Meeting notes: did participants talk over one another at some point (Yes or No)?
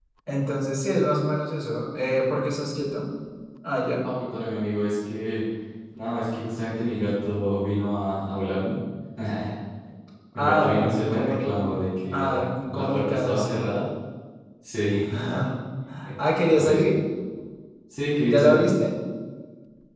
Yes